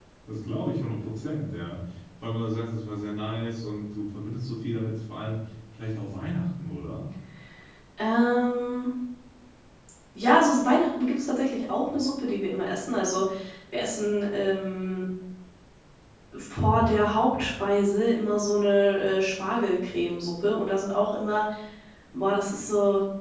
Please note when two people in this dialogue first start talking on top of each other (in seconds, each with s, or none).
none